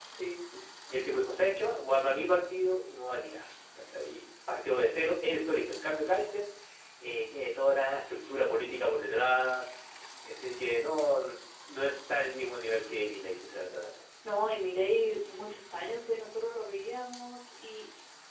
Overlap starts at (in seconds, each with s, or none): none